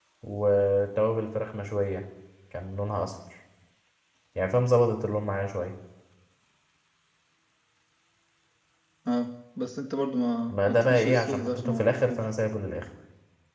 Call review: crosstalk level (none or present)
present